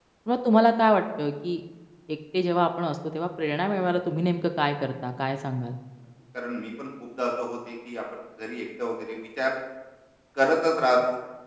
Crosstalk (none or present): none